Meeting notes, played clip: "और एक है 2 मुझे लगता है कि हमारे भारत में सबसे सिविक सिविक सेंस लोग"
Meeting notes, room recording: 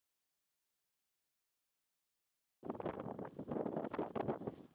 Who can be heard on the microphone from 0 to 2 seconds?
neither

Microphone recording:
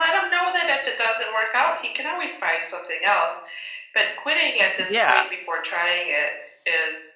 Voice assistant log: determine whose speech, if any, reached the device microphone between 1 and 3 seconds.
echo only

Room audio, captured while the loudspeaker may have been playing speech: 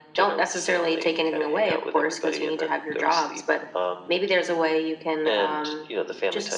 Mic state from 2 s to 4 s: echo only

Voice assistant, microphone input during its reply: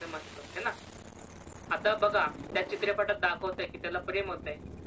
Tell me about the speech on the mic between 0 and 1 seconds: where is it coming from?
echo only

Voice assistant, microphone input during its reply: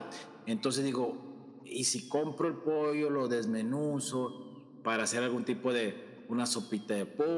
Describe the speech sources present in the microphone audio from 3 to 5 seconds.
echo only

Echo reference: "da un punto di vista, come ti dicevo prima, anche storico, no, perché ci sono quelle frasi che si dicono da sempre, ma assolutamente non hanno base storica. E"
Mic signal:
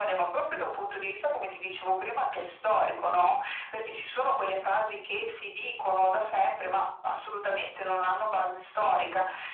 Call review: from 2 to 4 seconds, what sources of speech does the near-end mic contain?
echo only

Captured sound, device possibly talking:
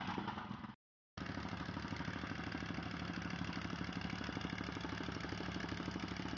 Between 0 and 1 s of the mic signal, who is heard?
neither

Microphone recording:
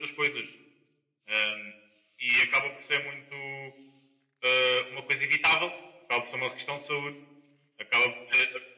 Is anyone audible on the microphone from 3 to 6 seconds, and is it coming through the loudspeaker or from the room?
echo only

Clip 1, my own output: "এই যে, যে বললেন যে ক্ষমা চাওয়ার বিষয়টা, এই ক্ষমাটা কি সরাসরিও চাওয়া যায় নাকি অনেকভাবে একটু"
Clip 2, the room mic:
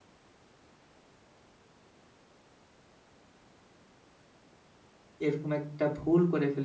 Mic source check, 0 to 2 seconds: neither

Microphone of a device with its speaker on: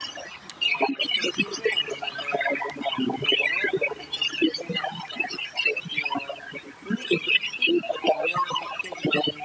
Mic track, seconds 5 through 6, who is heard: echo only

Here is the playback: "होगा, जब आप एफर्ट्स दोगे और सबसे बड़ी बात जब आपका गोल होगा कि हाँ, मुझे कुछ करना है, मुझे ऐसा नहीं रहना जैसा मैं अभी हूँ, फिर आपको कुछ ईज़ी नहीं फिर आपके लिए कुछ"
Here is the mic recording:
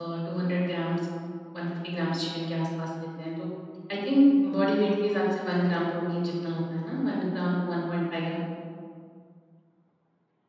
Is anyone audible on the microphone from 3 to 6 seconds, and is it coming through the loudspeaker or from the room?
user only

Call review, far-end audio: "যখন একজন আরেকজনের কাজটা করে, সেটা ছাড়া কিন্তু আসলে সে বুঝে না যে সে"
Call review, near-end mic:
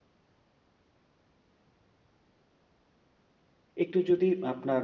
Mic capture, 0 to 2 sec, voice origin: neither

